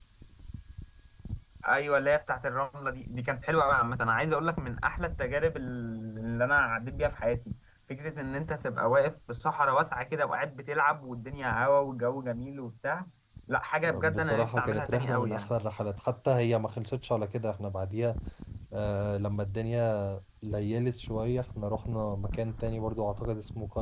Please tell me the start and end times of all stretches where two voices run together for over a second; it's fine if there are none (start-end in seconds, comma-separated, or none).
14.0-15.5